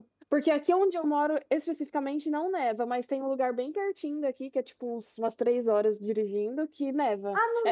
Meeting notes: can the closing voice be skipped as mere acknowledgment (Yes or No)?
No